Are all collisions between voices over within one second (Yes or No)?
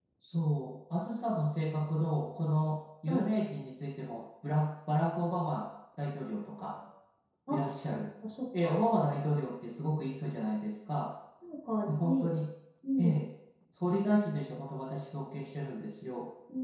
Yes